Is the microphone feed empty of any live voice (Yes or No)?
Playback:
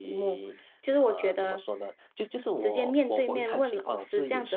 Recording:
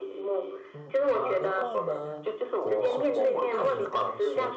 No